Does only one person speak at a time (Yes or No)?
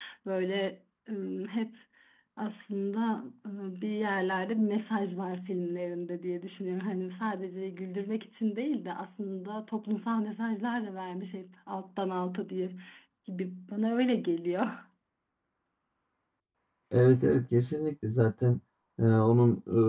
Yes